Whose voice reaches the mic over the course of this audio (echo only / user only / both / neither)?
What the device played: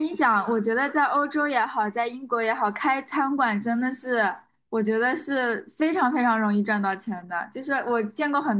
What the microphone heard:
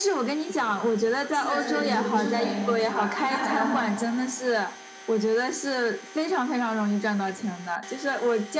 both